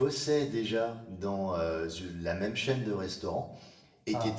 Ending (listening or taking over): listening